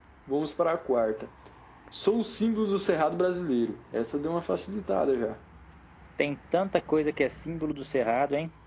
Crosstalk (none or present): none